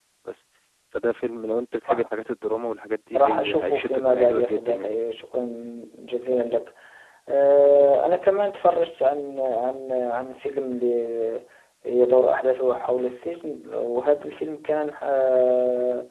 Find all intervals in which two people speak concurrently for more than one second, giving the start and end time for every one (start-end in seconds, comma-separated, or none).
3.2-4.9